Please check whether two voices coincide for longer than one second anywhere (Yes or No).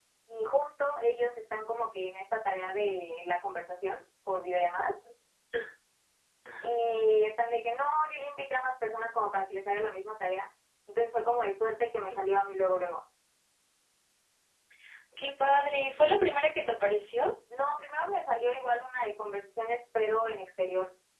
No